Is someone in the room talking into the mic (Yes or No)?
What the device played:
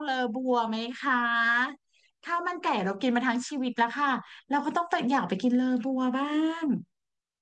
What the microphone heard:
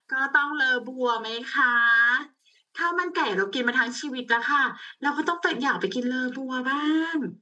No